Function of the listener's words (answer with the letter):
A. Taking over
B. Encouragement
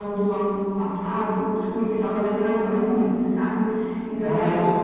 B